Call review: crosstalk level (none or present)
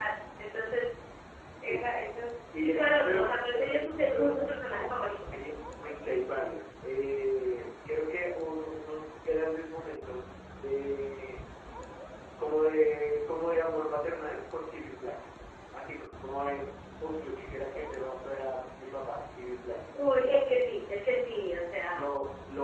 present